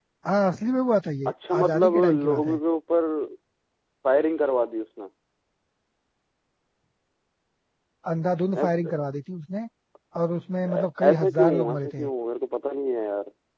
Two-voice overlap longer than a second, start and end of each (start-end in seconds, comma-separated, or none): 1.3-2.6, 10.7-12.1